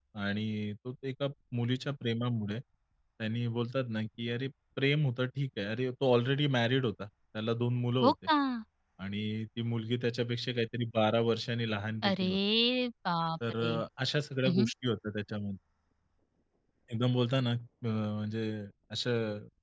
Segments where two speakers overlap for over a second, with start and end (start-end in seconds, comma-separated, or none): none